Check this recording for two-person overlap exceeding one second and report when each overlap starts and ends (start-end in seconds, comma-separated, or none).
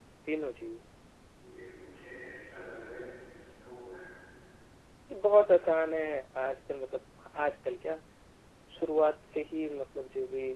none